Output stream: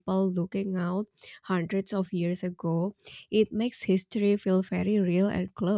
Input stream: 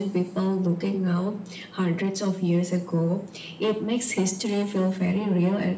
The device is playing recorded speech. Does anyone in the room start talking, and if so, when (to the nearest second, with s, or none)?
none